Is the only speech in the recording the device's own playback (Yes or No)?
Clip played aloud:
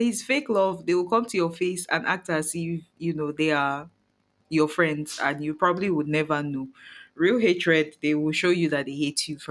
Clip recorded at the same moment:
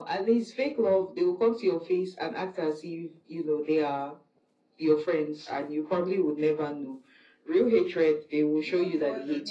No